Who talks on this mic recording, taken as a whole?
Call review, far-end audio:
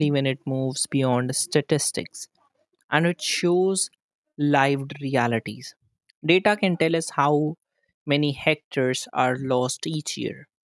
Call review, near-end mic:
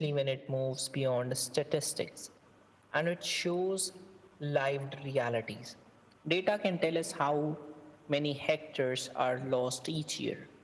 echo only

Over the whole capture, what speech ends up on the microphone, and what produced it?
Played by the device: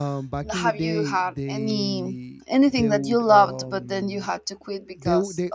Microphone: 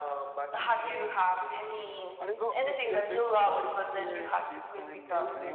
both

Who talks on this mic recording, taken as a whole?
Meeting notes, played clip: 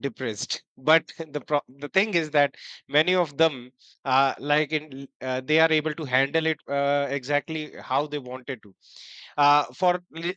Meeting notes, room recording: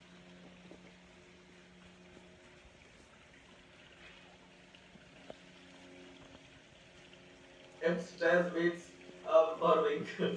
user only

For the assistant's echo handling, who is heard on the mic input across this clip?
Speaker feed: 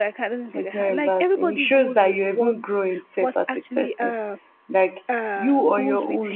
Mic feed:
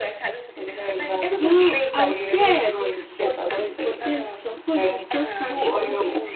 both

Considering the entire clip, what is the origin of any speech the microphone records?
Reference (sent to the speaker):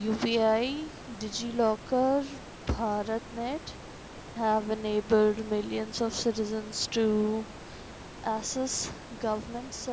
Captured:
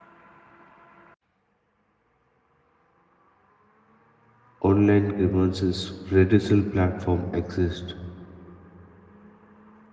user only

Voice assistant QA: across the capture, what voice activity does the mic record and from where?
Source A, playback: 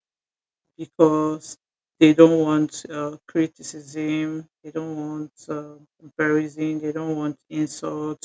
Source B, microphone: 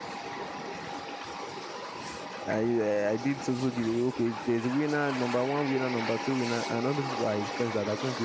user only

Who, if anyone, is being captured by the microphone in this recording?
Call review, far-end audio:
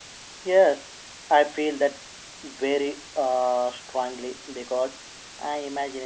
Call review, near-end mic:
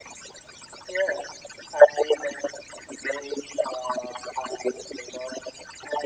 echo only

